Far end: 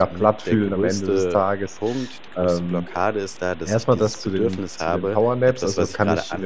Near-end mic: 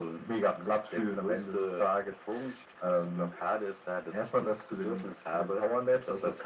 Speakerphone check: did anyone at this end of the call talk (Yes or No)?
No